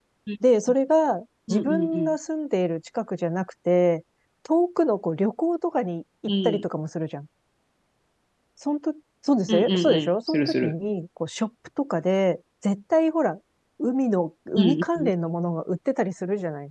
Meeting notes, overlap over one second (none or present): present